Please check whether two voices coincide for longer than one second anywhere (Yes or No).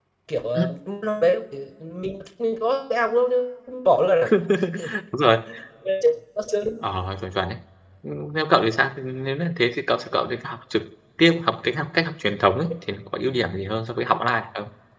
No